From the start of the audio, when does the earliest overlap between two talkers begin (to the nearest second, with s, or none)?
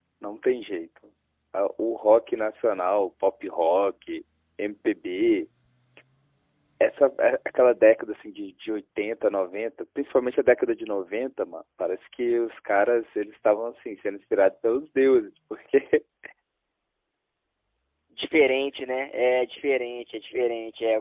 none